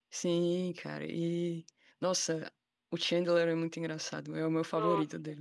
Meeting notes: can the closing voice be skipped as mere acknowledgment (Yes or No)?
No